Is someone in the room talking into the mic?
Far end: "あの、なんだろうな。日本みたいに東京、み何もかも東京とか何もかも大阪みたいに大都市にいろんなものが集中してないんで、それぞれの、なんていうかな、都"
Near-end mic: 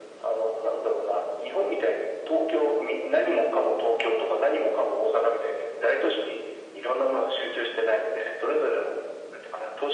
No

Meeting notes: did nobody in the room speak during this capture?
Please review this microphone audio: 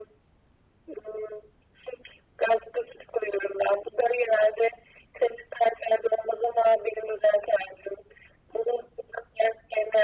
Yes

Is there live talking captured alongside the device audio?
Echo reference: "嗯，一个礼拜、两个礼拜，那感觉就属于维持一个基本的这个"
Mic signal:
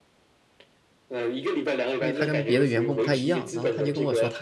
Yes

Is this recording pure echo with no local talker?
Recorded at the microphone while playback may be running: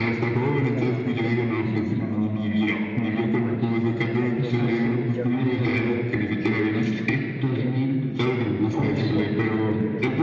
No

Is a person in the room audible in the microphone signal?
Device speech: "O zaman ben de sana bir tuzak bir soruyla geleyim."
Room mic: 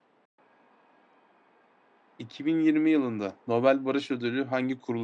Yes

